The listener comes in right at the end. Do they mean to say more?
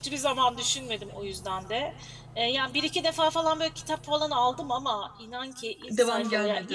No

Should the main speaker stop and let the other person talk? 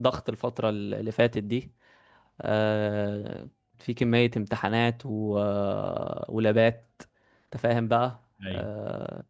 No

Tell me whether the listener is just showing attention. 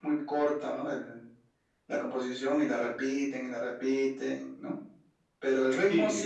Yes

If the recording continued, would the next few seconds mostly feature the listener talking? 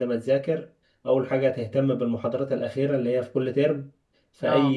No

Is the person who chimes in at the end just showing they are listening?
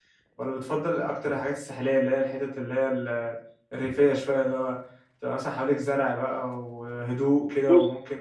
Yes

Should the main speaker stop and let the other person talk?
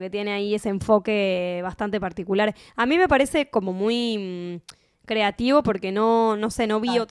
No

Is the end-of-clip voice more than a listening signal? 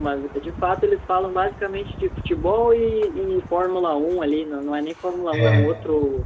No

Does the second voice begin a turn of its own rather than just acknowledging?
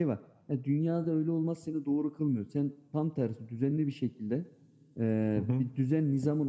No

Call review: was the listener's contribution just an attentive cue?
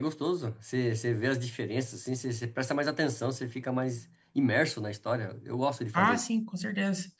No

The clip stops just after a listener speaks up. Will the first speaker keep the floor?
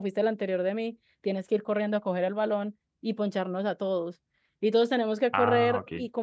Yes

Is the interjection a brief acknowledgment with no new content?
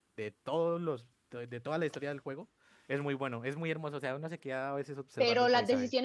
No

